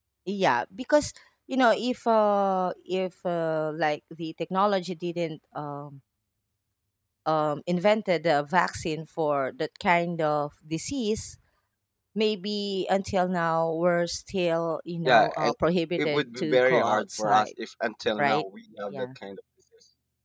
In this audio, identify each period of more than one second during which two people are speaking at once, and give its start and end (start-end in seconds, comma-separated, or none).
16.0-17.5